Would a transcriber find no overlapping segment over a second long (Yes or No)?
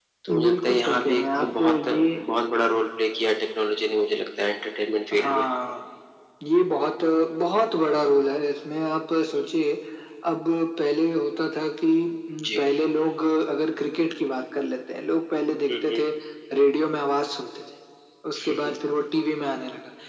No